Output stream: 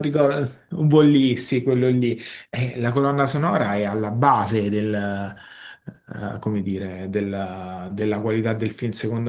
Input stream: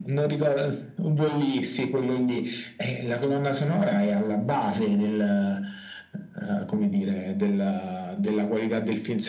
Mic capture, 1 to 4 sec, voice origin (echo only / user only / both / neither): echo only